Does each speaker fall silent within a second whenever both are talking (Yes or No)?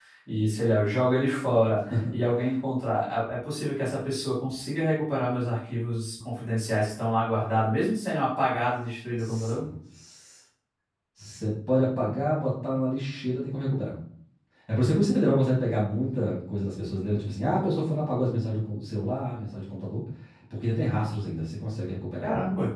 Yes